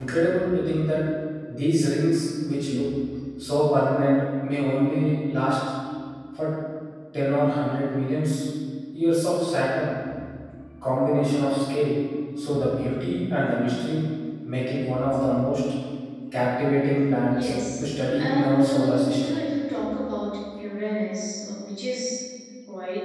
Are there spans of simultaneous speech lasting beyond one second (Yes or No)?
Yes